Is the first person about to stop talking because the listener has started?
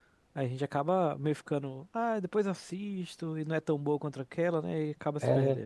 Yes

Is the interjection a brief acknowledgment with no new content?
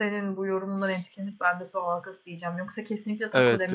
Yes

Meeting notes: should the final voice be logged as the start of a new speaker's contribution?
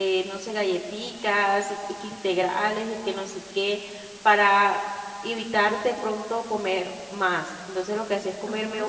No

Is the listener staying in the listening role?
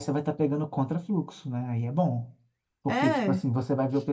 Yes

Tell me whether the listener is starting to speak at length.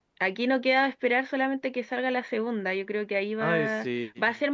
No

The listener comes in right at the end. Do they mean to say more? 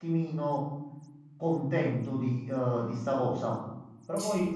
No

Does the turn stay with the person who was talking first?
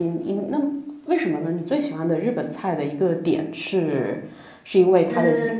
Yes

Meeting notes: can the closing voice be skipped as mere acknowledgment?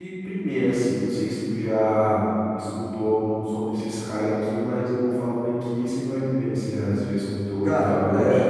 No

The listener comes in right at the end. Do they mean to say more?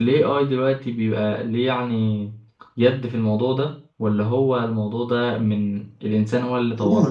Yes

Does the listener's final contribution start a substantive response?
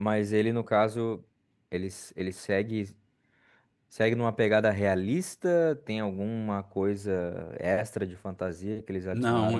Yes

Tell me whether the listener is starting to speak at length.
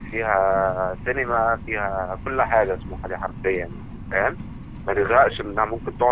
No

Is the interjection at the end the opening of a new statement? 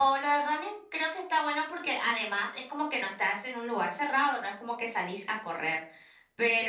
No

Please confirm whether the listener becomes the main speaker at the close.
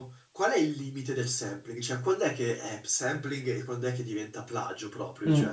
Yes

